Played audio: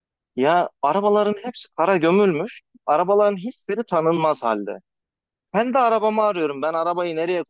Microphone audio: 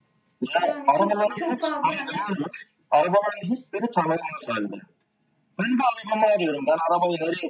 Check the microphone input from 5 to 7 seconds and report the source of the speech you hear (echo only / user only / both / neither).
echo only